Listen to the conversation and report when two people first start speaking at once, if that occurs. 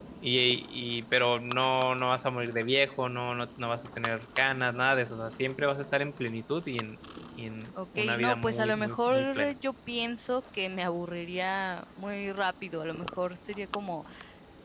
8 s

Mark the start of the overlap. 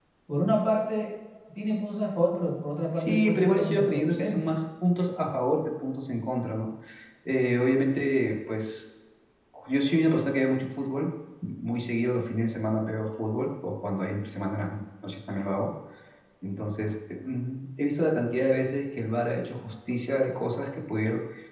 3 s

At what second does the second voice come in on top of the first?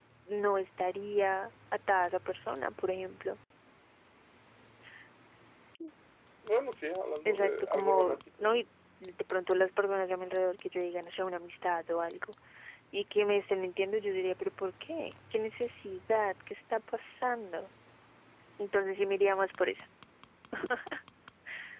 7 s

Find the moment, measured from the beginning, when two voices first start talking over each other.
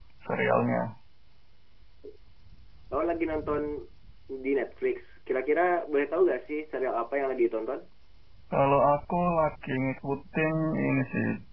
none

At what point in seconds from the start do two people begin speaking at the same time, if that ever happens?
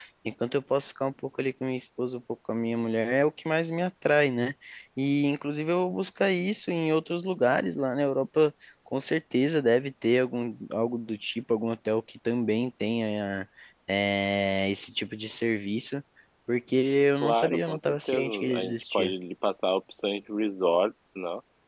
17 s

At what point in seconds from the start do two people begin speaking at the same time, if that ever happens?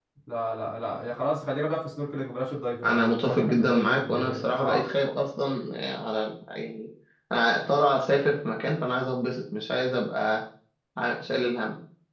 3 s

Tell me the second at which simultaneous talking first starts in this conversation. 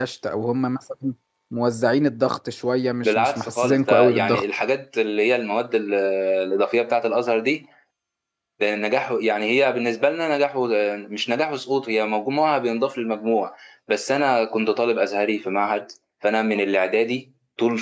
3 s

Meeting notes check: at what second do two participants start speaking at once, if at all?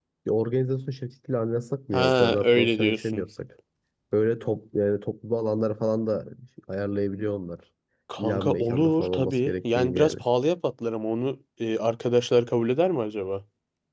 2 s

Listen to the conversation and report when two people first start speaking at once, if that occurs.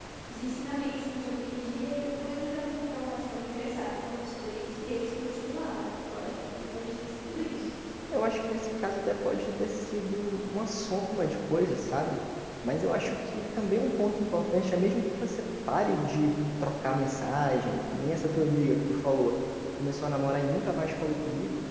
none

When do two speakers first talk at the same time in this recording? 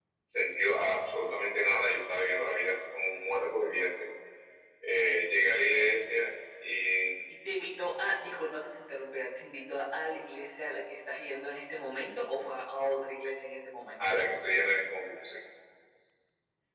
none

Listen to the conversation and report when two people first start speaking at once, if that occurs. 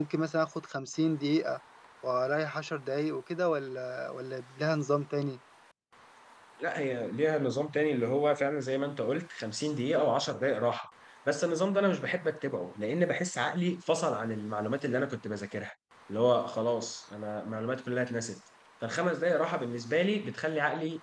none

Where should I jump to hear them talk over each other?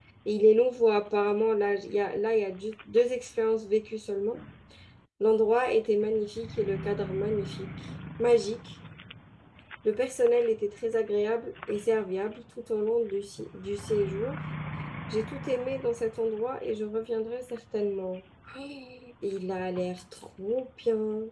none

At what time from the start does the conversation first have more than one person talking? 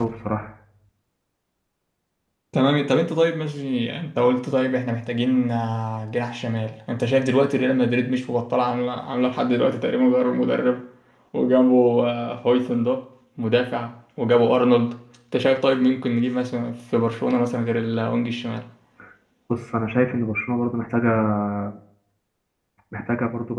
none

